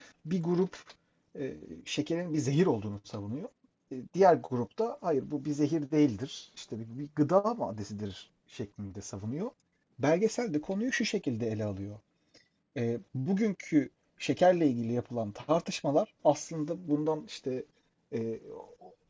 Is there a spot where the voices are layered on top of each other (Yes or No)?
No